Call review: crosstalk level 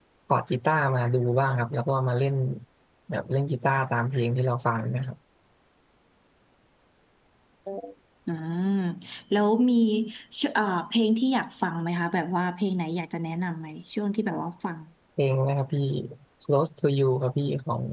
none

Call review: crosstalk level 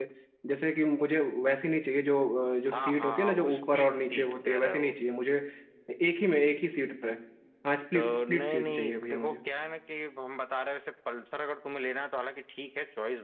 present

